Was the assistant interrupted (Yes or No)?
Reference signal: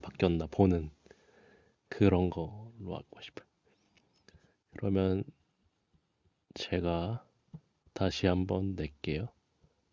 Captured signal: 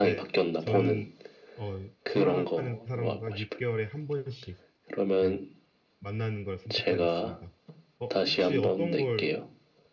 Yes